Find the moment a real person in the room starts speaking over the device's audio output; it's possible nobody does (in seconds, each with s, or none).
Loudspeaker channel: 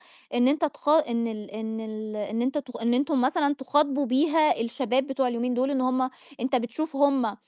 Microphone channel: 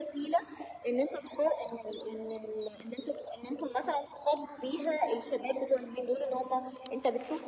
none